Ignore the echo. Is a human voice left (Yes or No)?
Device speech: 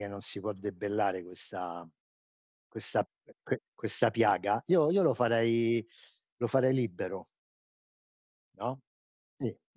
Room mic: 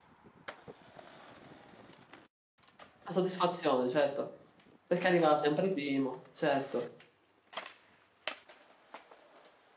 Yes